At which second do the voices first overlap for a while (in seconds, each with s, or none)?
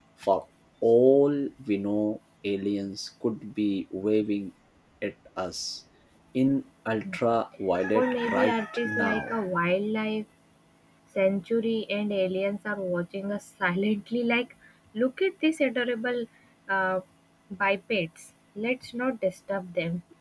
7.9 s